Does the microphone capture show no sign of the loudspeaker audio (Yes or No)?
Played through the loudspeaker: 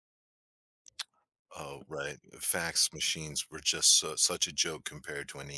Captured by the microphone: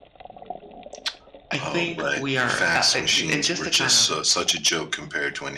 No